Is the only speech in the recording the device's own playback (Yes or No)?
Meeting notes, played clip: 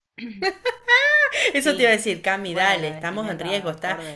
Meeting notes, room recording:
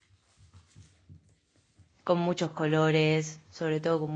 No